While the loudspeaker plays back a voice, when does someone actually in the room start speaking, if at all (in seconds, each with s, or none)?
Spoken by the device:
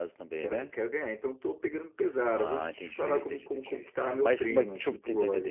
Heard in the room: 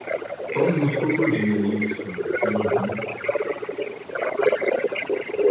0.5 s